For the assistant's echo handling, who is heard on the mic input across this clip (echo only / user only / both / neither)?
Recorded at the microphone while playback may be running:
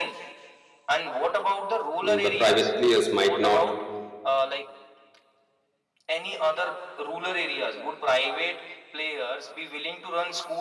both